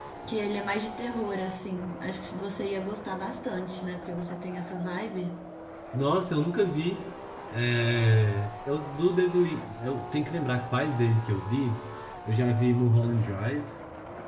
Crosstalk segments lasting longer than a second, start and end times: none

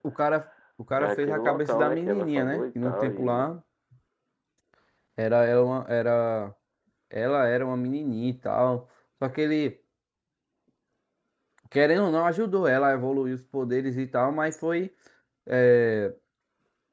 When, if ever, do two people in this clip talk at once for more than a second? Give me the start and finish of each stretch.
1.0-3.5

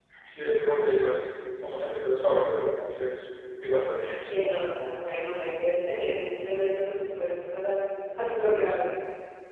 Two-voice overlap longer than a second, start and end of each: none

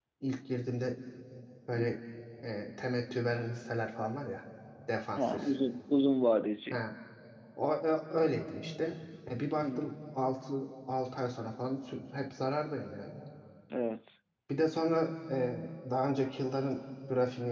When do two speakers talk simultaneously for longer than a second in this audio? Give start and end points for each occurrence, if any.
none

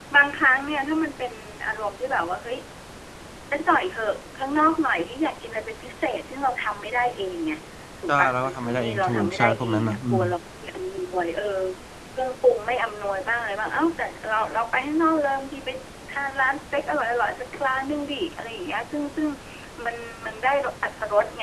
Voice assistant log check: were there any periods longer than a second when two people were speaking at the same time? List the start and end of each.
8.1-10.2

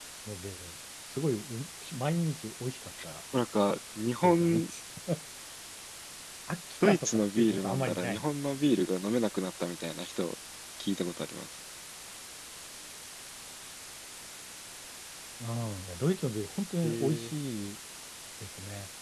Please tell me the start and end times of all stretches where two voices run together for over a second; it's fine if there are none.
6.8-8.2

